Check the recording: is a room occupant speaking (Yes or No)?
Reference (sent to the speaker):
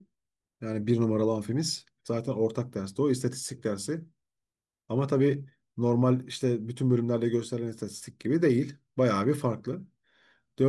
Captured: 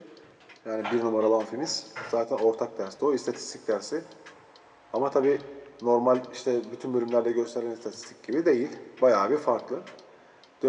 No